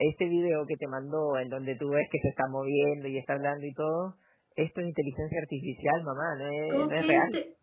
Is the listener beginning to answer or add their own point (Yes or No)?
Yes